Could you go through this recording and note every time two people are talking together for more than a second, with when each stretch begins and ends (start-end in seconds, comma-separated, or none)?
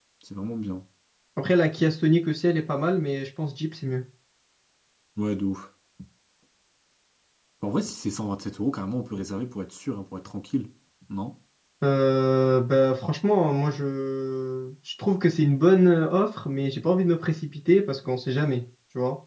none